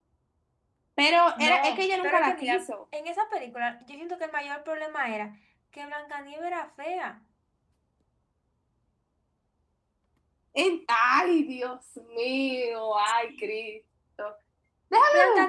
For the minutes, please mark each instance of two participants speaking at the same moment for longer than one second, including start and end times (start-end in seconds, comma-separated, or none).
1.4-2.6